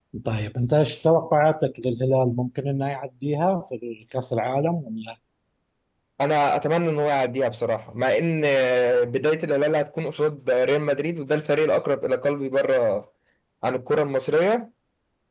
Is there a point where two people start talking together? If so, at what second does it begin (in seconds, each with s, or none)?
none